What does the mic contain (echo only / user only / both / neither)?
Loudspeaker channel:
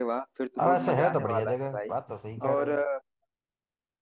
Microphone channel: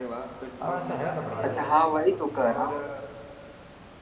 both